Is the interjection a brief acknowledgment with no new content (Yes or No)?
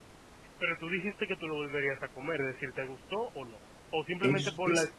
No